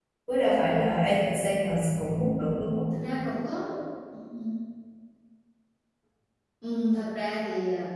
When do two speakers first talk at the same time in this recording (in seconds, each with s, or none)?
none